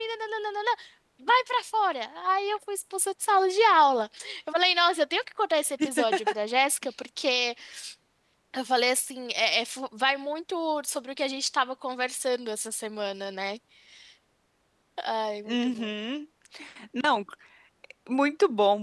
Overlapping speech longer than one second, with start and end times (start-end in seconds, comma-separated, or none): none